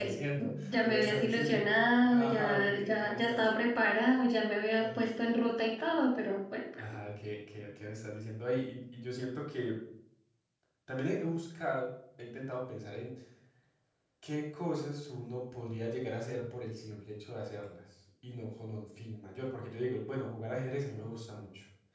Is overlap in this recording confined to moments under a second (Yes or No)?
No